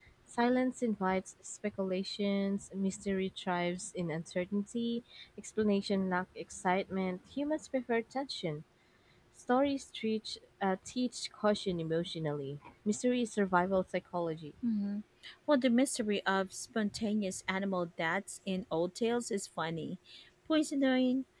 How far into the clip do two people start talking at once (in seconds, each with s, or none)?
none